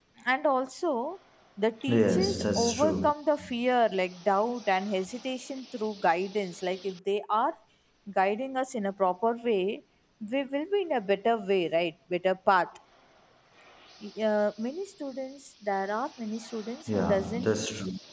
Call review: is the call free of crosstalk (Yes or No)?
No